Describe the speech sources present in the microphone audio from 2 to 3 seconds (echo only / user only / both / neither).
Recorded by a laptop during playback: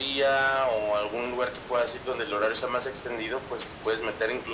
echo only